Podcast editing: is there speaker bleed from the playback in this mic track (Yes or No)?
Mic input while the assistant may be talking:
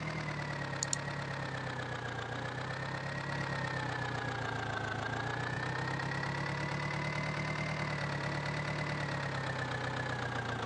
No